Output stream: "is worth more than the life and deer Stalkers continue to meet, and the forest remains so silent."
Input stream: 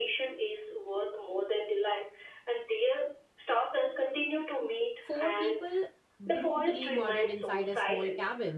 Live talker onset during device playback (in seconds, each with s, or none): 5.0 s